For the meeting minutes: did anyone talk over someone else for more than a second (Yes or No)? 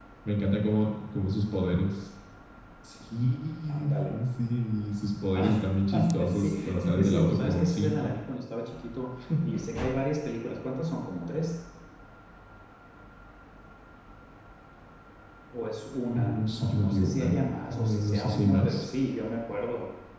Yes